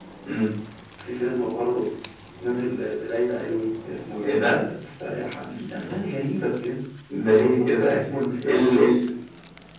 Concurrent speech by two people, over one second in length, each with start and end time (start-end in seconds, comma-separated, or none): 7.3-8.8